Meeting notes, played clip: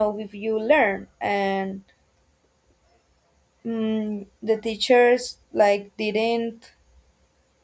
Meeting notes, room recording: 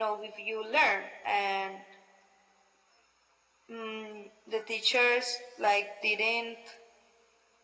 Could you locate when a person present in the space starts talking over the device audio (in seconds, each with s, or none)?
none